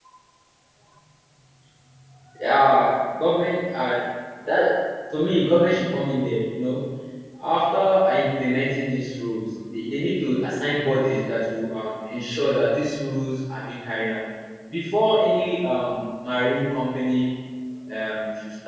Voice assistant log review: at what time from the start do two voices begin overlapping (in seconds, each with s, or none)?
none